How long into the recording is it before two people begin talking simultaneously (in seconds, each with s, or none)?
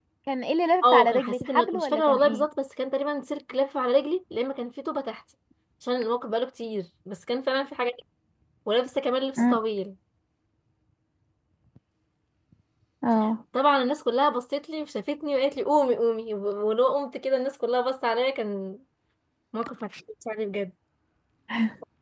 0.8 s